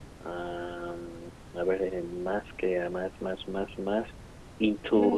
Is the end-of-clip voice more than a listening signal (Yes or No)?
No